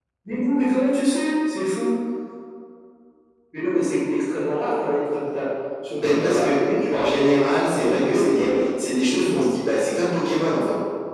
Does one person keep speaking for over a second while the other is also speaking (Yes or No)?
Yes